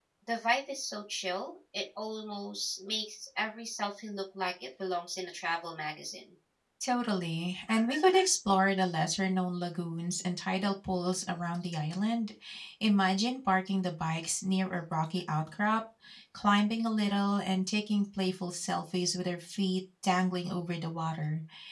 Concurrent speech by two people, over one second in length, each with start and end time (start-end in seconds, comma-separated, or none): none